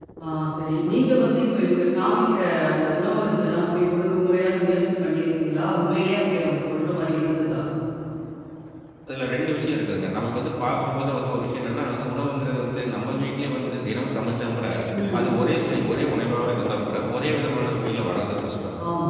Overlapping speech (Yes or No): No